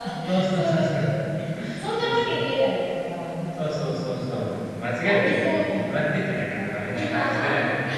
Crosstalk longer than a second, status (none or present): present